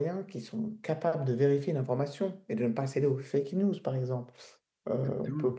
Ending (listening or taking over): listening